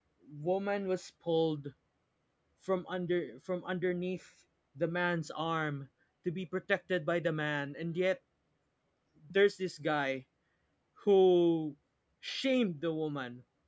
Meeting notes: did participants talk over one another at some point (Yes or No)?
No